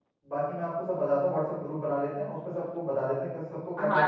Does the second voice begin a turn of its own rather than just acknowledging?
Yes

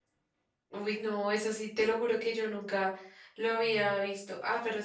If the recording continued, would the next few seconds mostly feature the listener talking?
No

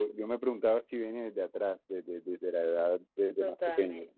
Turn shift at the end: Yes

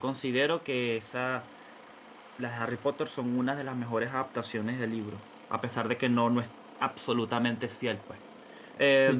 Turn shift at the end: Yes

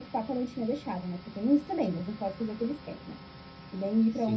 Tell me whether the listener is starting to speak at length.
Yes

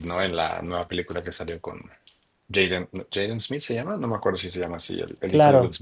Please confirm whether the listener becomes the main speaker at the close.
Yes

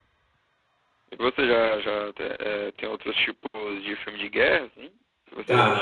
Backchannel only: No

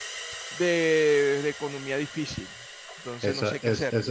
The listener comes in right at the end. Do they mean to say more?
Yes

